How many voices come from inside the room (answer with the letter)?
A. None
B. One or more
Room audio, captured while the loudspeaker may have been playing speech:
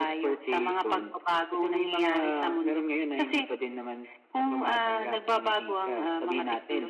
A